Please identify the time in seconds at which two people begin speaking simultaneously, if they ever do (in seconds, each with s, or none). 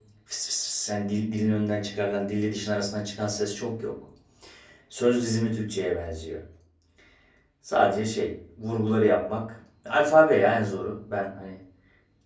none